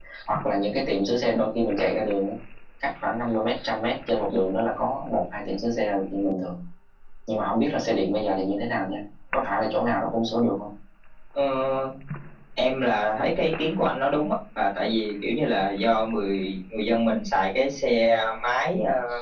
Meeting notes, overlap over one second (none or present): none